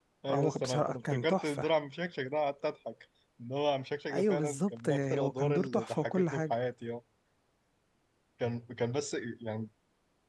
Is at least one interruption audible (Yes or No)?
Yes